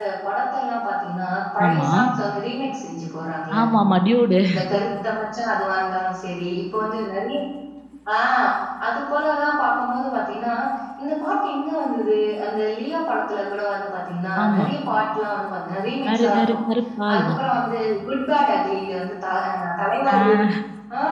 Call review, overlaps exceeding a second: none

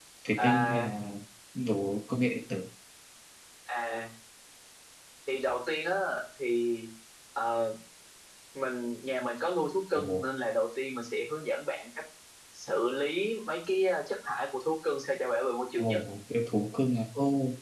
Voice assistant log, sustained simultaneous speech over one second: none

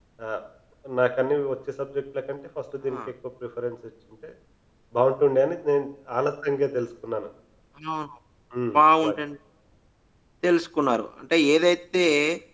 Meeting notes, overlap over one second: none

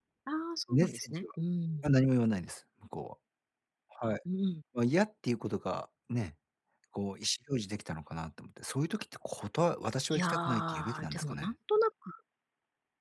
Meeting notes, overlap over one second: present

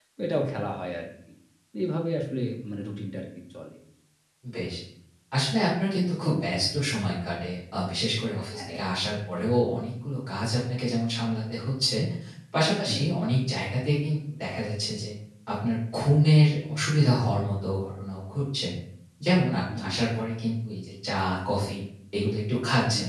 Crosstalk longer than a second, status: none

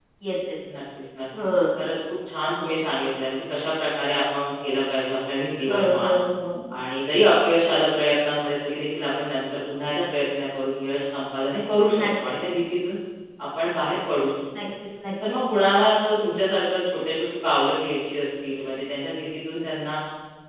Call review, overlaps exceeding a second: none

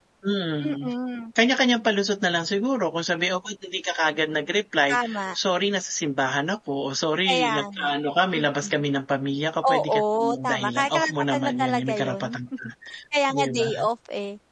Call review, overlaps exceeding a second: present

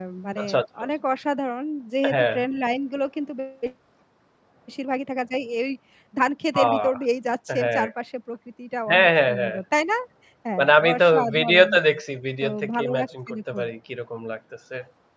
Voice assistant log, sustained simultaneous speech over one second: present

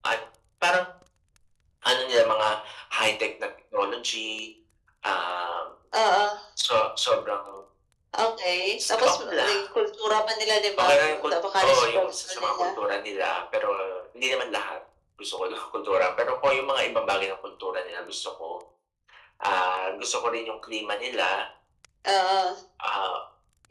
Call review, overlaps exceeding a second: present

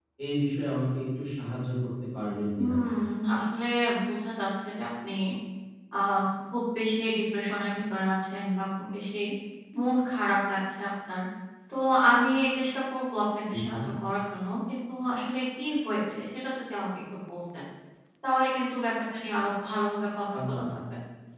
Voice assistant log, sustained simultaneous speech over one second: none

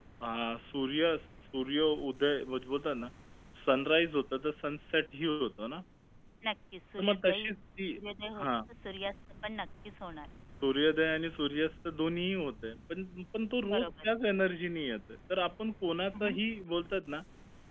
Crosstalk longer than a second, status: none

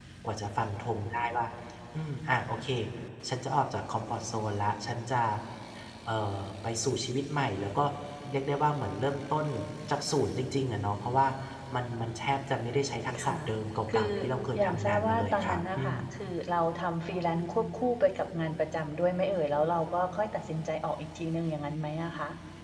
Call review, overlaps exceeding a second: present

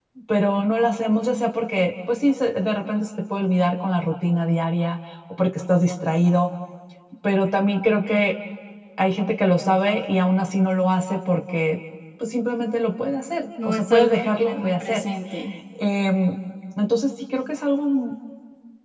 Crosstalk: present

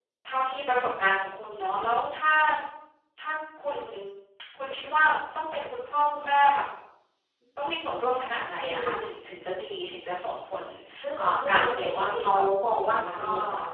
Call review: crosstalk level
present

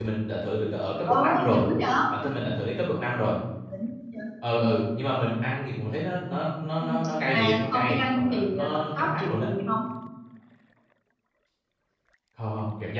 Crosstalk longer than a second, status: present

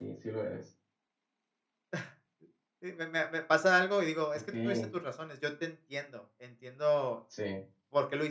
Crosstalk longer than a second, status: none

